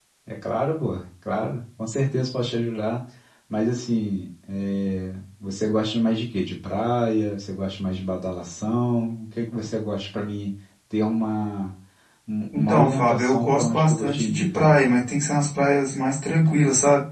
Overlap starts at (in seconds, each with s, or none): 12.6 s